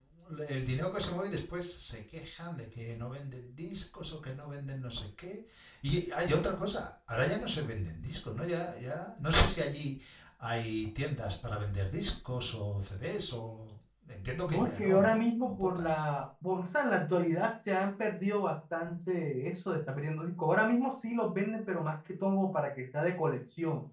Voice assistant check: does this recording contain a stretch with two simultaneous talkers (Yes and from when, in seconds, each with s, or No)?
Yes, from 14.5 s